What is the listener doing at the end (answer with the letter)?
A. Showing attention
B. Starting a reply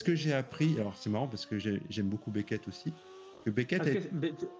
B